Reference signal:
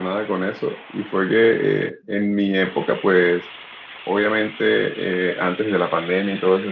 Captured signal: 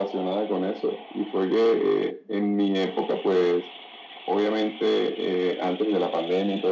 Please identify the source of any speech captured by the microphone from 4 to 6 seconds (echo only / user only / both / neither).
echo only